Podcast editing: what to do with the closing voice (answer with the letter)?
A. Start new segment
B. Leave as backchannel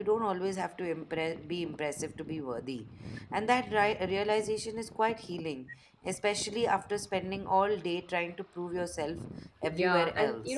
A